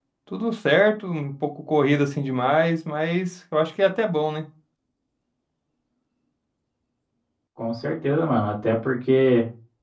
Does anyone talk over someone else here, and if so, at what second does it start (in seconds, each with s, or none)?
none